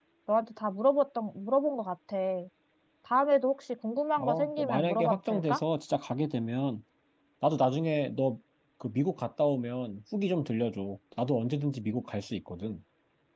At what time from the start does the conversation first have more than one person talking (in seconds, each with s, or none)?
4.2 s